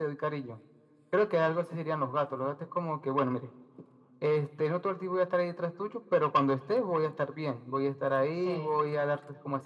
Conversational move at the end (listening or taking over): listening